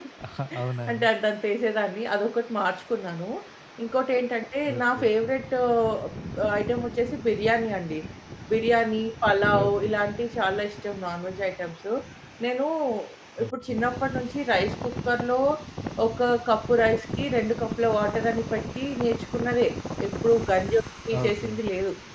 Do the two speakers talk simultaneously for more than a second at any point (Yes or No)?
No